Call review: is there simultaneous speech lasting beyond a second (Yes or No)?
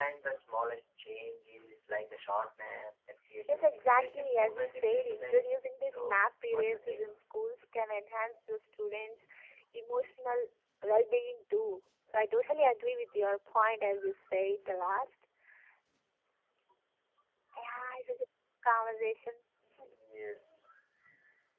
Yes